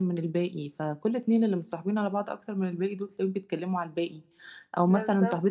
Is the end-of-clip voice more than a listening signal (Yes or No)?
No